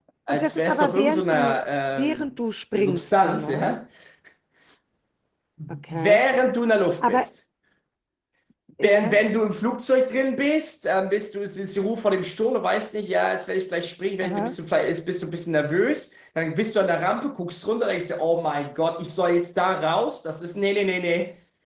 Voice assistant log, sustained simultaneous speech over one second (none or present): present